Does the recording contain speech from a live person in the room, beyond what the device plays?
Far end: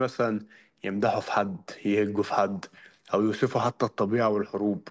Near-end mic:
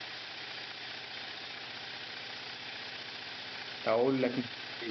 Yes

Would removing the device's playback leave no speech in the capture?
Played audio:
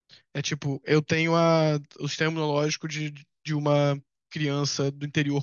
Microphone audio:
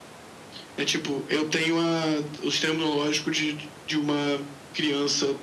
Yes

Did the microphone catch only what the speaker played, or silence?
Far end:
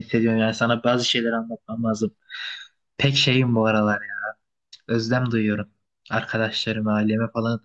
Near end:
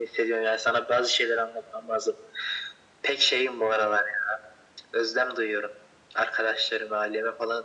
Yes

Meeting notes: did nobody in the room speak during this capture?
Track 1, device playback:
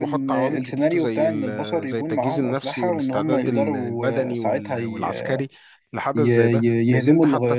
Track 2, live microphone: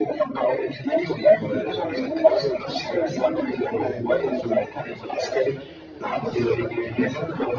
No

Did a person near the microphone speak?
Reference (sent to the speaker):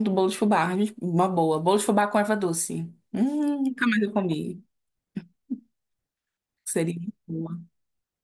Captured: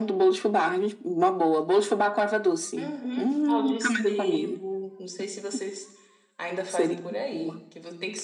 Yes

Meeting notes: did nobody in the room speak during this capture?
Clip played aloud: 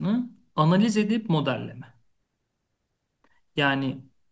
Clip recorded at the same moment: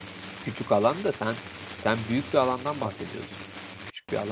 No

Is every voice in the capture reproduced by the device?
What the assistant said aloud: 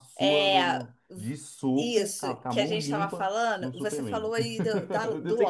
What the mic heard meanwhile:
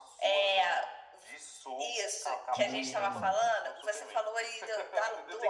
No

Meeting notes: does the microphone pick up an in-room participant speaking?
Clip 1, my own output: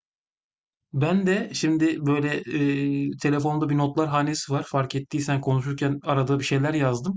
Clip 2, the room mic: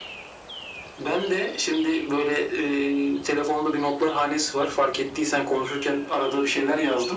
No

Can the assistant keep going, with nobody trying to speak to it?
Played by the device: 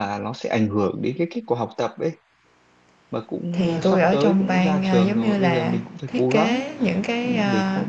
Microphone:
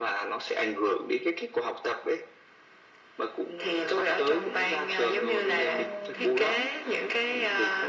No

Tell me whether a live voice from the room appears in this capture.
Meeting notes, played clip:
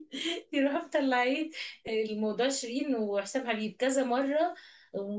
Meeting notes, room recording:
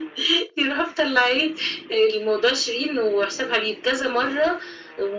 No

